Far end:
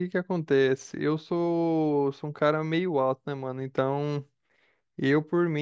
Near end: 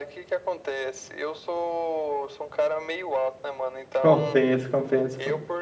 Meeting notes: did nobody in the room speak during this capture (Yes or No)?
No